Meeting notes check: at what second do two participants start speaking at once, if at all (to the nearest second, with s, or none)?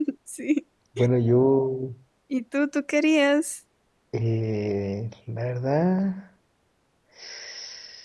none